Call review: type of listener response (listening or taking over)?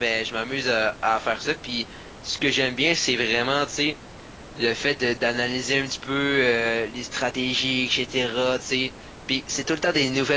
listening